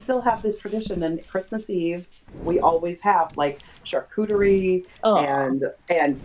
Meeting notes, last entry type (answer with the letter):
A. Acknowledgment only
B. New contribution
A